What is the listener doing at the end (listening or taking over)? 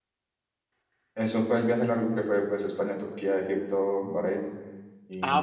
taking over